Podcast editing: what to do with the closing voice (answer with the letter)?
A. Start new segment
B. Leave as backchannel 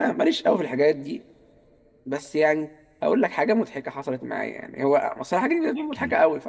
B